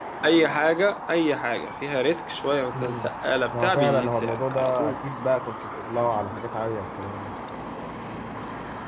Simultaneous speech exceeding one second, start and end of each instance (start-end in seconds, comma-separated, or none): 3.5-5.0